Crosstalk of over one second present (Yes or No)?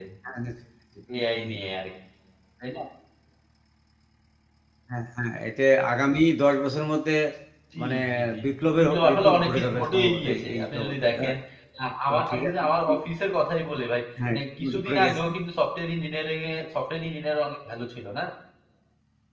Yes